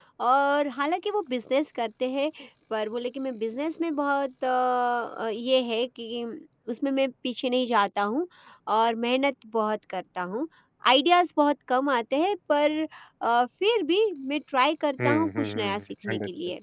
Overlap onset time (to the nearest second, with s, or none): 15 s